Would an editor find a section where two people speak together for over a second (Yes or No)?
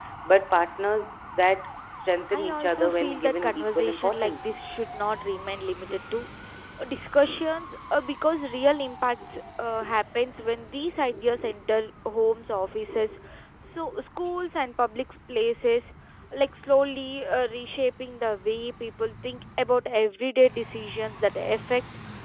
Yes